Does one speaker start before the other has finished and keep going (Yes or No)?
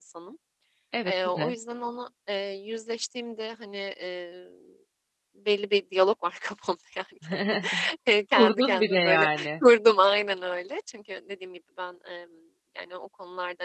Yes